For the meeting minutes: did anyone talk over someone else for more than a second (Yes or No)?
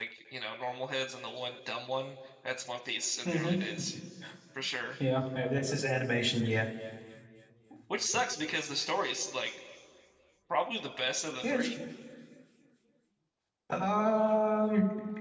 No